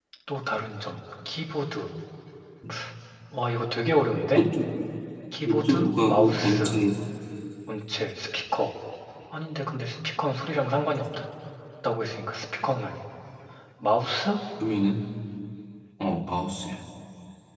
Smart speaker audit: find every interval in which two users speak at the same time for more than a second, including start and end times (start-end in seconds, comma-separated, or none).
5.4-6.8